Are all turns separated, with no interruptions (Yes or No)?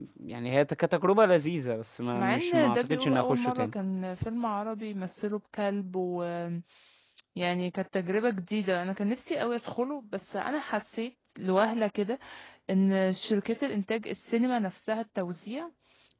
No